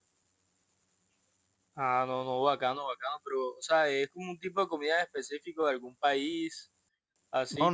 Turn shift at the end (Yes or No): Yes